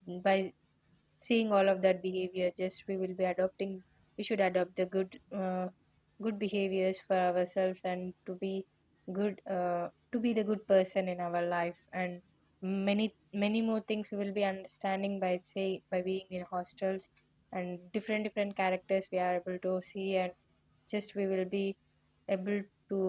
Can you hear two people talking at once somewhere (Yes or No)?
No